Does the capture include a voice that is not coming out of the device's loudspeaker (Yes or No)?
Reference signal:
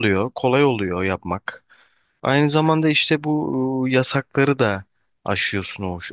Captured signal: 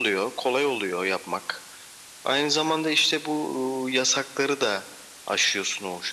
No